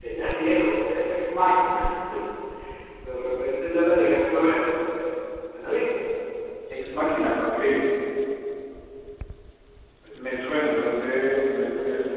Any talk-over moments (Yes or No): No